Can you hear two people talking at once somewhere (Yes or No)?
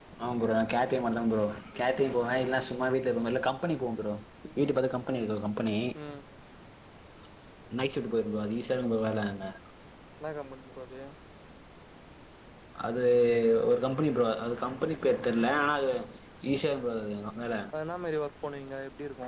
No